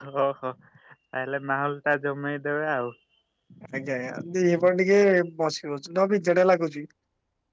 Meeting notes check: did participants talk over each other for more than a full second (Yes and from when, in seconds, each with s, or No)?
No